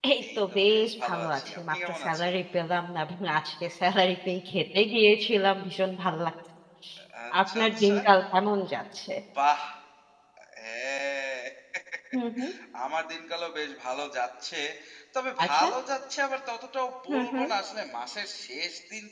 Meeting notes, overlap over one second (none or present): present